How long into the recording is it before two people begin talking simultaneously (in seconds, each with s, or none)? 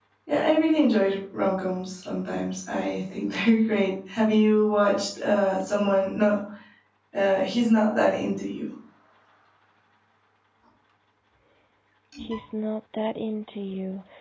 none